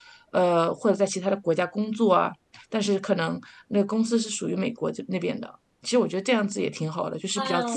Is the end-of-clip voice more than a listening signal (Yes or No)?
Yes